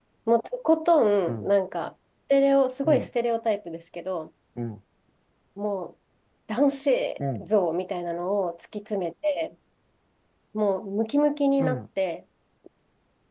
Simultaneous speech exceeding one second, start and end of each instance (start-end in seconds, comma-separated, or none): none